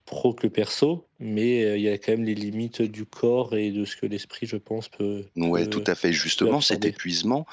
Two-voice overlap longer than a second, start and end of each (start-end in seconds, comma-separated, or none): none